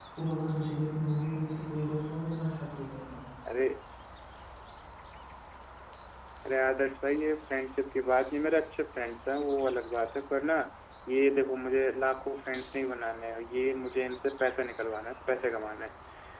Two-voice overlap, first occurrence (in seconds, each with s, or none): none